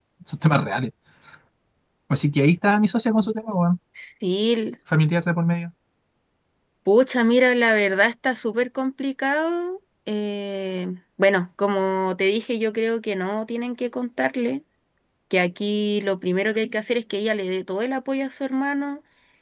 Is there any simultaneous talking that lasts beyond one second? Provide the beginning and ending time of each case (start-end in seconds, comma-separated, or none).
none